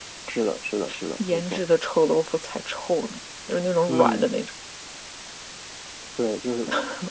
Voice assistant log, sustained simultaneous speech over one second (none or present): none